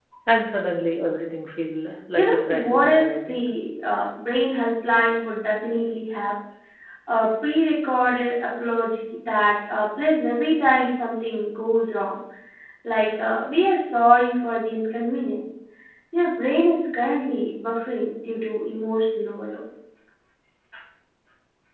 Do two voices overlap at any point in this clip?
Yes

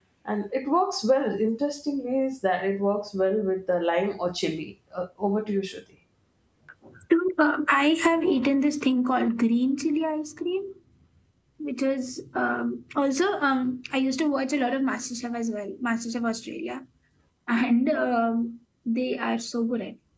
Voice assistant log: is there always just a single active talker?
Yes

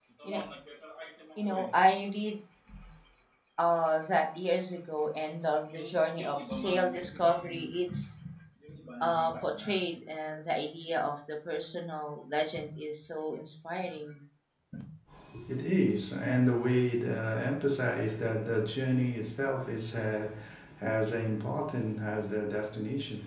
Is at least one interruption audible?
No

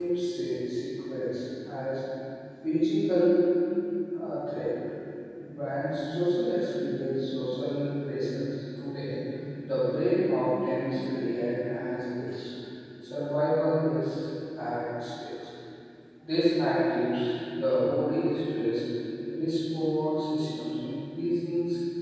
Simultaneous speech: No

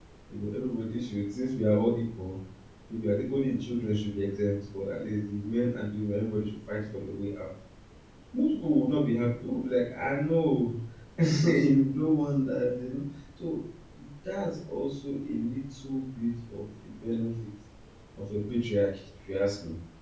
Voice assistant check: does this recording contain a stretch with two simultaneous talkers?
No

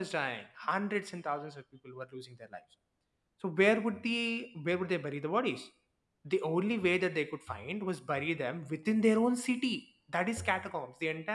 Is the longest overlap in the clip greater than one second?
No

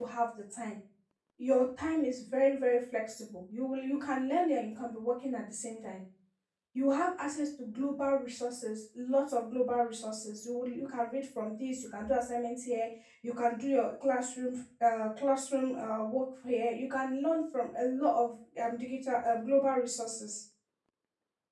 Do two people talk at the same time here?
No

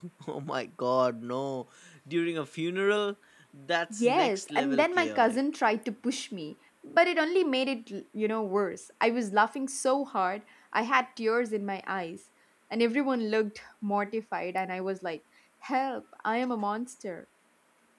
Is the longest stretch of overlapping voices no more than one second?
No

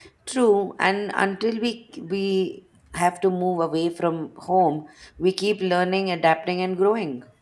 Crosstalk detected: No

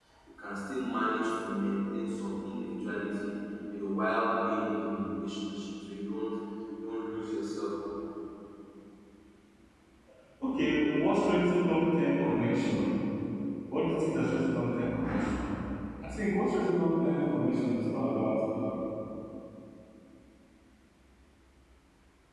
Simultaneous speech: No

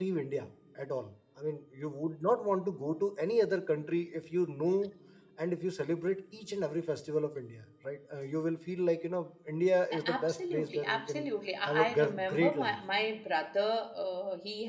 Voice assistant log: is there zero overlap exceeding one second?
No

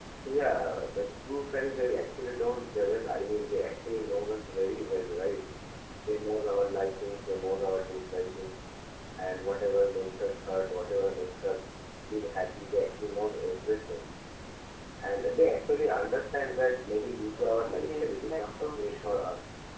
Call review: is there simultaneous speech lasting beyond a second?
Yes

